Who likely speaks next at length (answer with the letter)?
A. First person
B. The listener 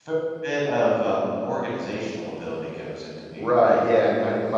B